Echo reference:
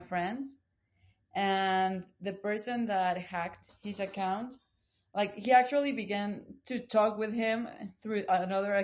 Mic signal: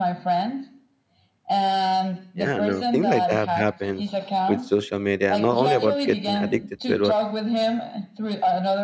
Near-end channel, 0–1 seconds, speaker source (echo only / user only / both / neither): echo only